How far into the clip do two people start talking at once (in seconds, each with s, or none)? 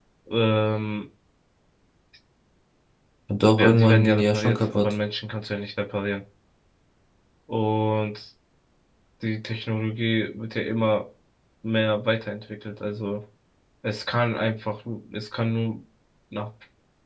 3.6 s